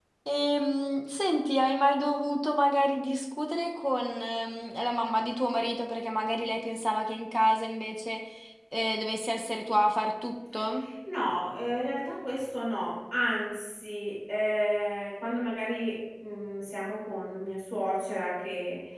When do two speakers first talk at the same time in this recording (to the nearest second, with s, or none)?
none